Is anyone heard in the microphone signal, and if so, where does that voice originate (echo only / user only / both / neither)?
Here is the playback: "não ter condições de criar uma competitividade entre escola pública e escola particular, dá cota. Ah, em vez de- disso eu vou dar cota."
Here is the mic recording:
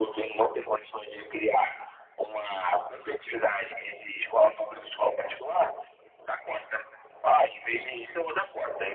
echo only